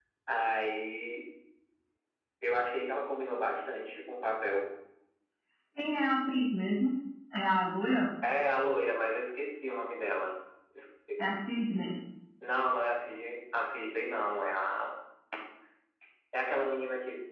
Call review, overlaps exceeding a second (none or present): none